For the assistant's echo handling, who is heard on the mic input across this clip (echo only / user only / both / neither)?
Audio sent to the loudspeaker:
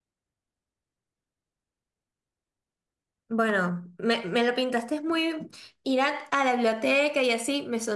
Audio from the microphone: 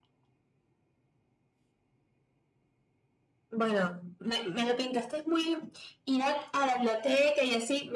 echo only